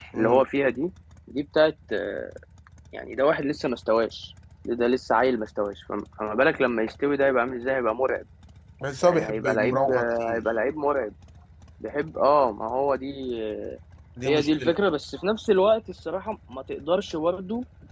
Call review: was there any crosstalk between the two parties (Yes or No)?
Yes